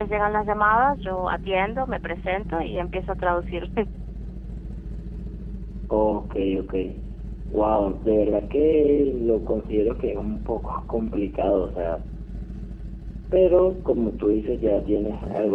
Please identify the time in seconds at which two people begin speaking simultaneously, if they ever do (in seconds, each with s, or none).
none